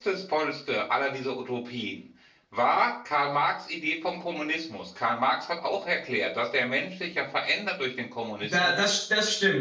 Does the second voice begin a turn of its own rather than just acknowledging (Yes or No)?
Yes